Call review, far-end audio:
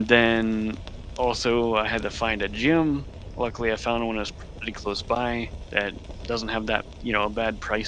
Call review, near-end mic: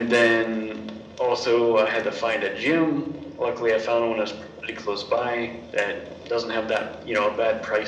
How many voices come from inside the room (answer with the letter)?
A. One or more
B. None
B